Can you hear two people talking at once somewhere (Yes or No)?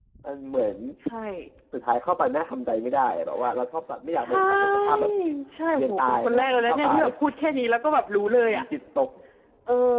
Yes